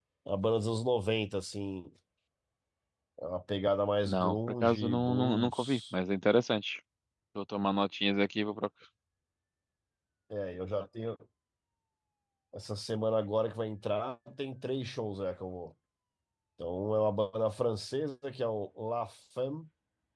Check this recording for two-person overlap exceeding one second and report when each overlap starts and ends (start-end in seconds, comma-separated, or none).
4.0-5.9